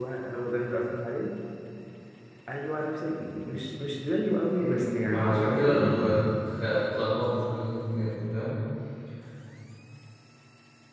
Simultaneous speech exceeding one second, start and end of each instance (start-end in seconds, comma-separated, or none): 4.6-6.2